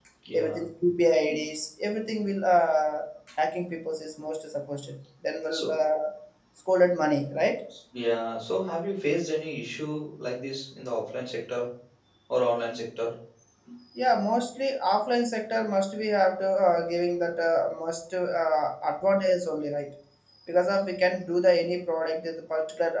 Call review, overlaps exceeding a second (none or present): none